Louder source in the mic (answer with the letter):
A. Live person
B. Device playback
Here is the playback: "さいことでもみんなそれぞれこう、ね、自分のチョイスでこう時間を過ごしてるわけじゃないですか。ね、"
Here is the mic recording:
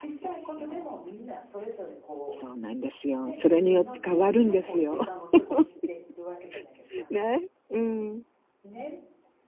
A